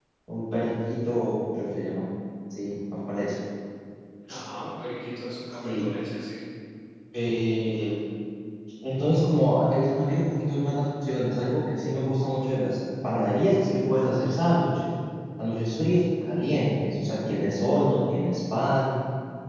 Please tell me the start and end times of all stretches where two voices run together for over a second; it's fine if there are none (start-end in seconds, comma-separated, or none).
none